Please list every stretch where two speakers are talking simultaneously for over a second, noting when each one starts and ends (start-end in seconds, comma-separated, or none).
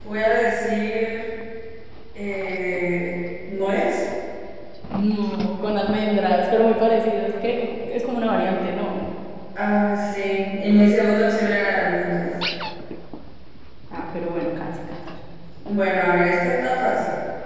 none